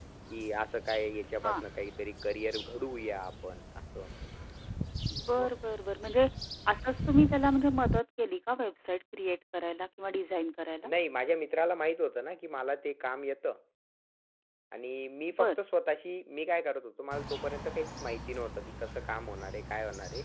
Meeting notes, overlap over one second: none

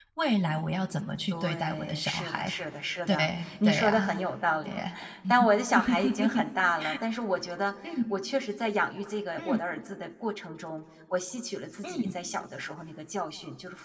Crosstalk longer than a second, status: present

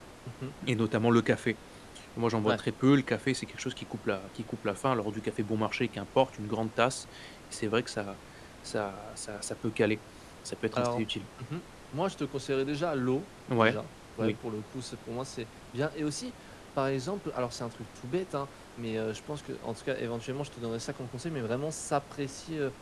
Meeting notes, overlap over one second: none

